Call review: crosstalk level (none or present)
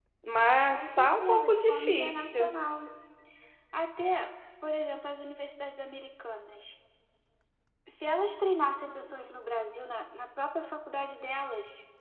present